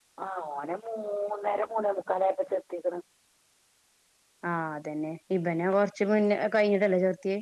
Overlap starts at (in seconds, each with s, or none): none